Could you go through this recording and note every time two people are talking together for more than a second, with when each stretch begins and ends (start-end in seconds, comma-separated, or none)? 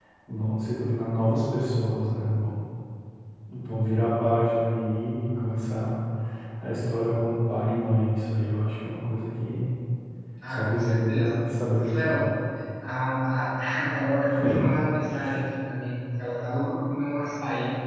10.5-12.2